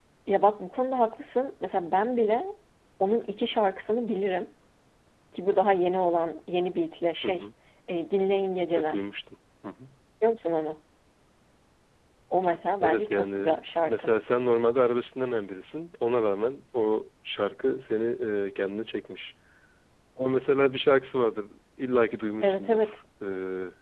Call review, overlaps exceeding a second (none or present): present